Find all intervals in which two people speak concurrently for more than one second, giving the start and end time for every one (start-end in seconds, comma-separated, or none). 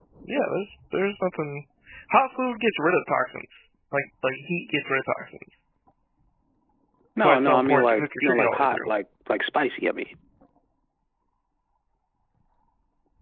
7.2-8.9